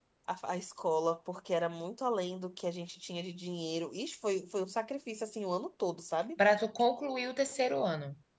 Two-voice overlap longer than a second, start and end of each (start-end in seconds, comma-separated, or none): none